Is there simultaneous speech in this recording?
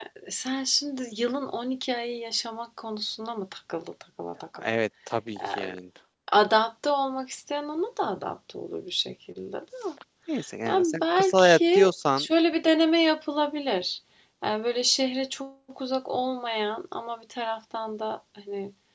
Yes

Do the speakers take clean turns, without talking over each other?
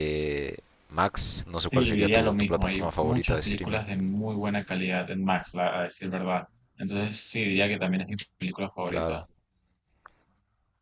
No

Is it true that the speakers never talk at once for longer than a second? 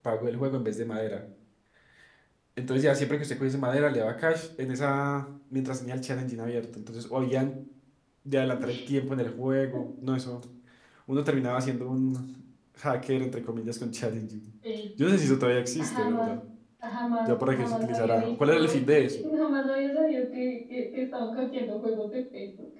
No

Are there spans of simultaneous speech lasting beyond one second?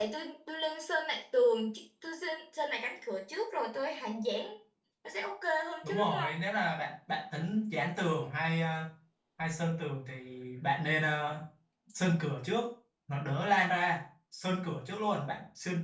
No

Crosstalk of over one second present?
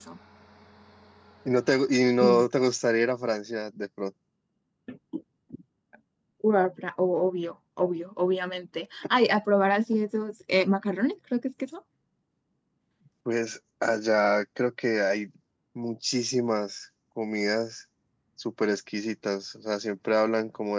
No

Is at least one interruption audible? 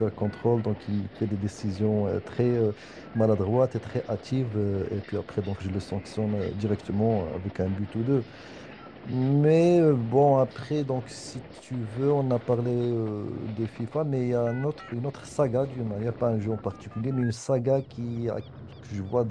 No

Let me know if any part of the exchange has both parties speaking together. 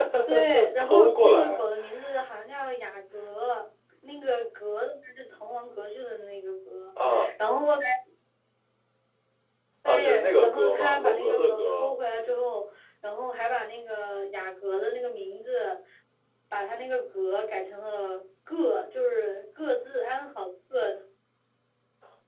Yes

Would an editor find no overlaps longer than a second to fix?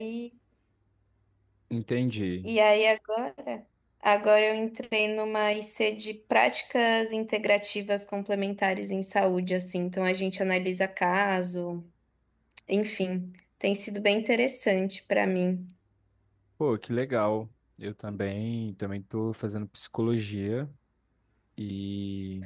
Yes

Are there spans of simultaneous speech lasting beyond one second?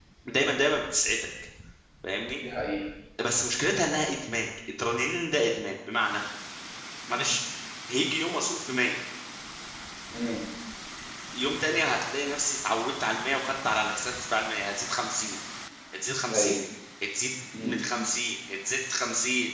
No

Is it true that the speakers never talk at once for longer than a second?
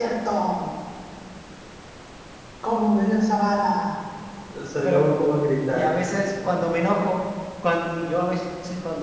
Yes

